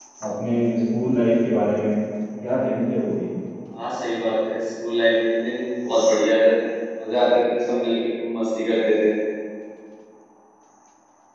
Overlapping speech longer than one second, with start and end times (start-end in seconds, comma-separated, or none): none